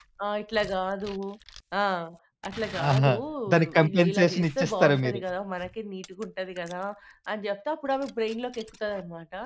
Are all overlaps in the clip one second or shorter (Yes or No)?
No